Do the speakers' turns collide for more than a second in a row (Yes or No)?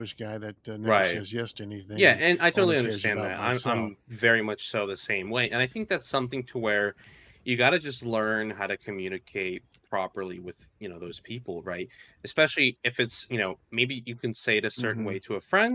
Yes